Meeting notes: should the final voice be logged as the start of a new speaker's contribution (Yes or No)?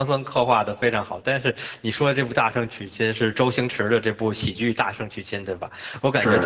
No